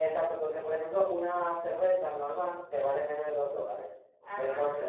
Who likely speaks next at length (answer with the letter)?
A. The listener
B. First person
B